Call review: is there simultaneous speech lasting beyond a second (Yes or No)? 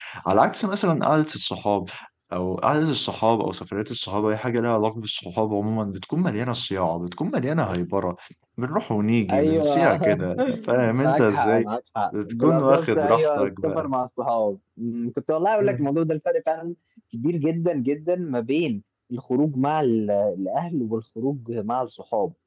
Yes